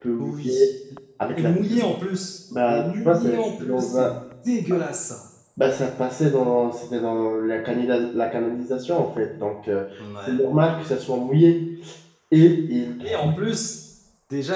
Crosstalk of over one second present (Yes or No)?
Yes